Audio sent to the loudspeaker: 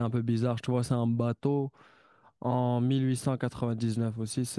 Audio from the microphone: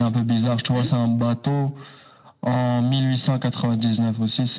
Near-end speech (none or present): present